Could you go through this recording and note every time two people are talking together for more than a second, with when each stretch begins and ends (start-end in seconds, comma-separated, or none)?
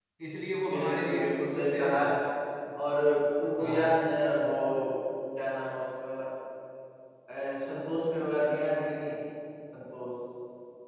0.7-2.0